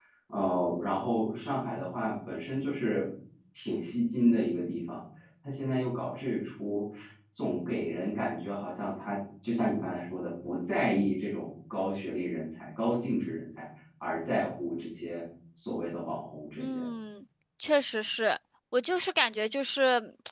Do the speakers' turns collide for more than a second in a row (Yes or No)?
No